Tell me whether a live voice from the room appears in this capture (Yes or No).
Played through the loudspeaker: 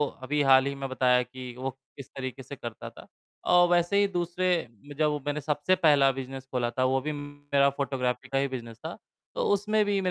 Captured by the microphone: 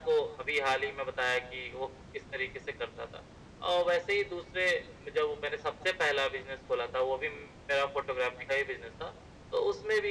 No